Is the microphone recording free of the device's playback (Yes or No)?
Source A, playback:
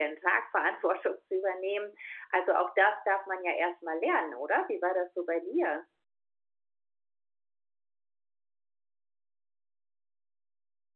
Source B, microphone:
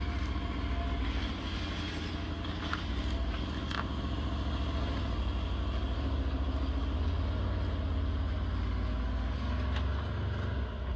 Yes